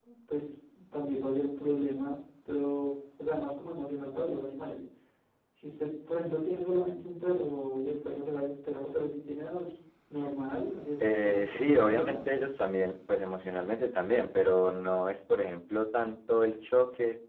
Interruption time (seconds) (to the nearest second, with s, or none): 11 s